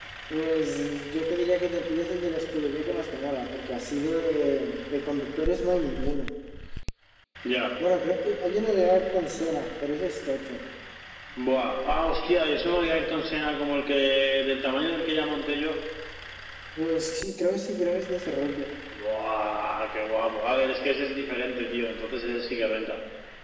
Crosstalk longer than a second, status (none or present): none